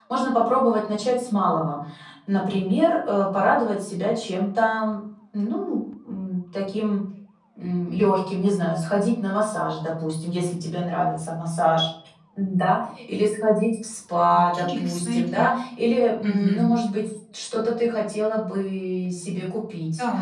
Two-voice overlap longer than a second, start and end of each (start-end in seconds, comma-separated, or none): 14.3-15.6